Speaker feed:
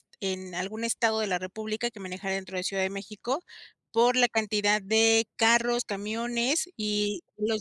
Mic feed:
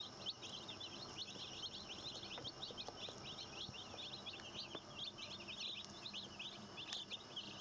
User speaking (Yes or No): No